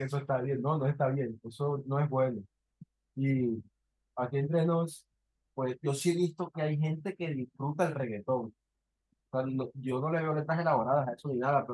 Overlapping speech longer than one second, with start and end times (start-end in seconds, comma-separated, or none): none